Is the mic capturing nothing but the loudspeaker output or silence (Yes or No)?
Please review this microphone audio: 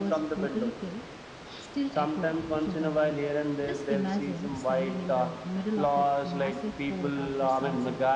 No